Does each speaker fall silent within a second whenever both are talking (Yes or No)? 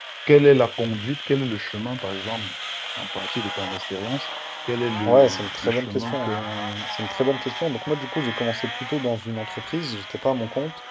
No